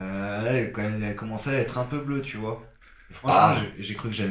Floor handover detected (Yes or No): No